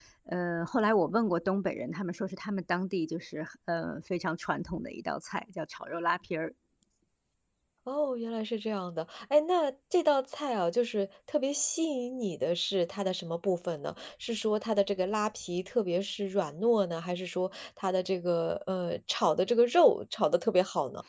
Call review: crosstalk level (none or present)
none